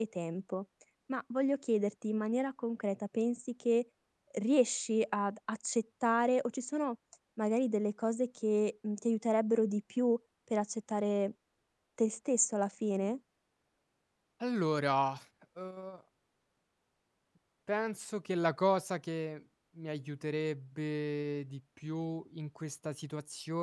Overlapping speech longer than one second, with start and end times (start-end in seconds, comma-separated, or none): none